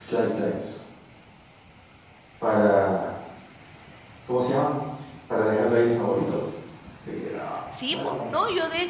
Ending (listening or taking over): taking over